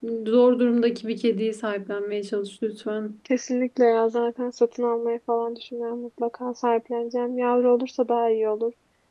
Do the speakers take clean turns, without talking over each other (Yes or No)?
Yes